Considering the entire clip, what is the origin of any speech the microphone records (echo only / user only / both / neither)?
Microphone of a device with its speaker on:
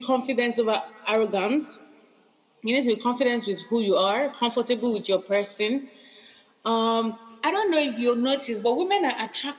echo only